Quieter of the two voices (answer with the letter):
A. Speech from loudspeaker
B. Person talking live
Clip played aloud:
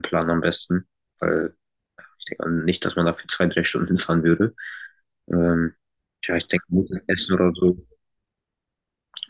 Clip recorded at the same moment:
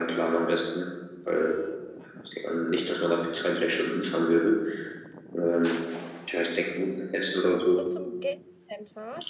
B